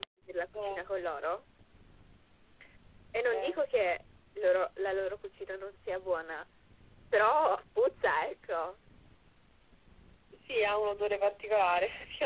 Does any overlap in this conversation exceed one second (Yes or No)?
No